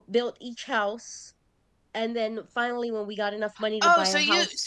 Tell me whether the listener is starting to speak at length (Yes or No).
Yes